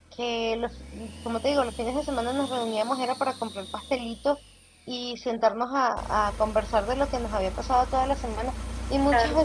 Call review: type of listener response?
listening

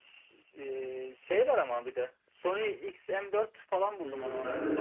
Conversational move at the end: taking over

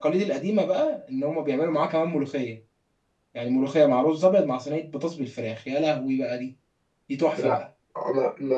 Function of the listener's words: taking over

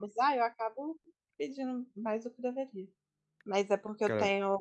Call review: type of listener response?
listening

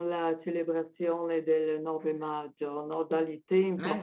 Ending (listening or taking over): listening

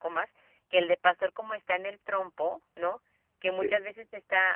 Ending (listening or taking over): listening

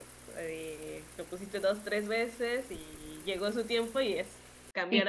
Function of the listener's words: taking over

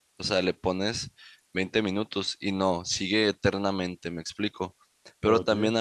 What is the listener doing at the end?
listening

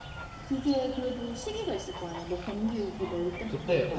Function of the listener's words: taking over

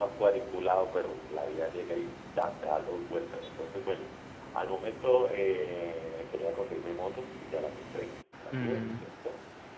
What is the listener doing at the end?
listening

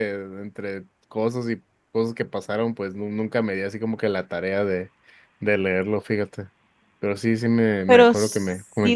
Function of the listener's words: taking over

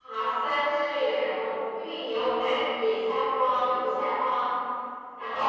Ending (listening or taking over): taking over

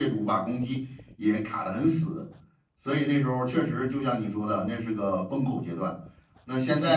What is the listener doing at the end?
listening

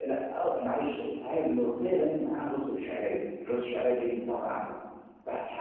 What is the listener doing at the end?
listening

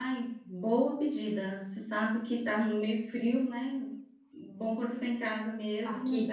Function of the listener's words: taking over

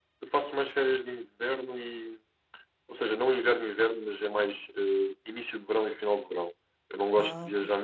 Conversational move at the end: listening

